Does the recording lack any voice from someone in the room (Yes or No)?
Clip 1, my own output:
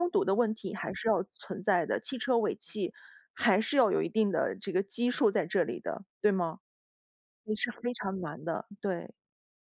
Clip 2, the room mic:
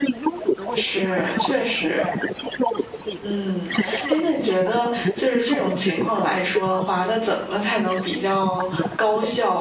No